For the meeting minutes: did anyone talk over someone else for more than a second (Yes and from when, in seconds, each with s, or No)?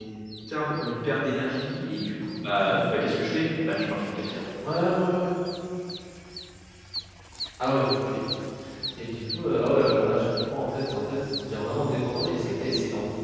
No